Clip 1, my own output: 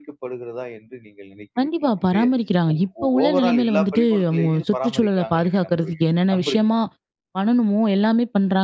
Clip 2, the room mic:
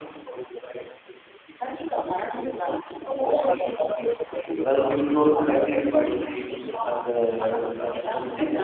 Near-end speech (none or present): present